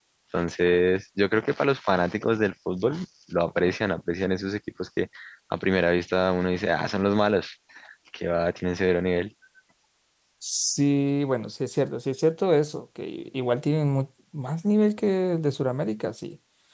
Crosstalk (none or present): none